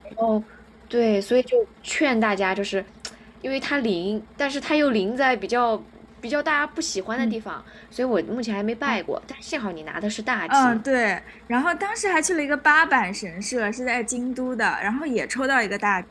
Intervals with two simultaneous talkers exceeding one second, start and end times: none

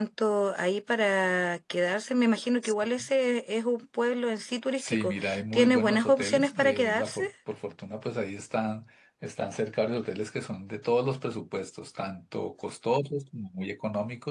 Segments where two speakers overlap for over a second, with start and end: 4.8-7.2

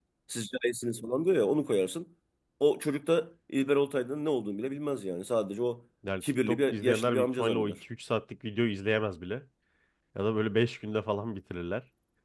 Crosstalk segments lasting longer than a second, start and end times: 6.2-7.8

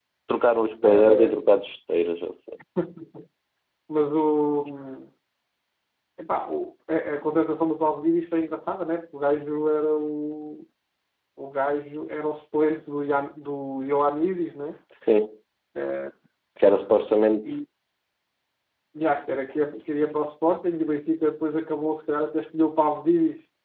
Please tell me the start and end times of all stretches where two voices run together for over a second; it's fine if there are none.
none

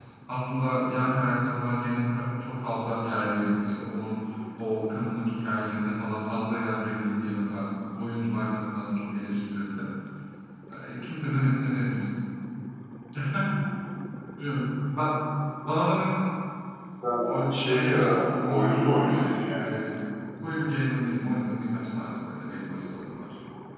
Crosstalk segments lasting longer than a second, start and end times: 17.2-19.8

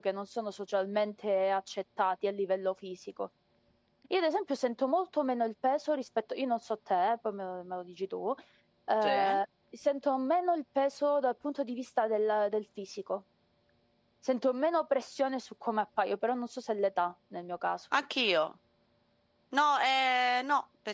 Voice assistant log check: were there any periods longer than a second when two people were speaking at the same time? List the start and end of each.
none

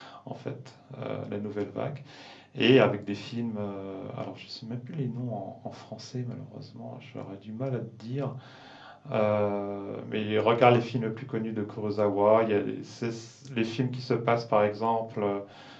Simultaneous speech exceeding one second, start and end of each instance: none

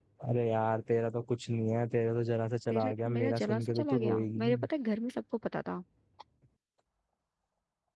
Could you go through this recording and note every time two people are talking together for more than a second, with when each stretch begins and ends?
2.7-4.7

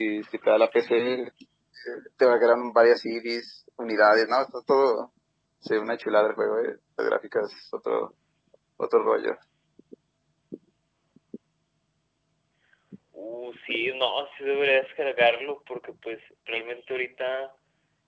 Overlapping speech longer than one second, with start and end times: none

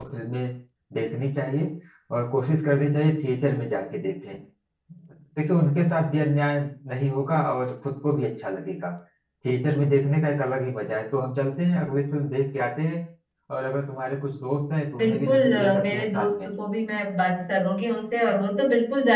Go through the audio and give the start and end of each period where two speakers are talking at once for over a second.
15.0-16.5

